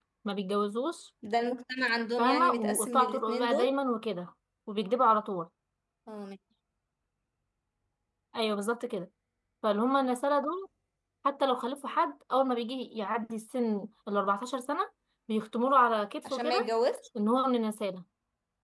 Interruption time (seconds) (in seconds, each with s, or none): 2.2 s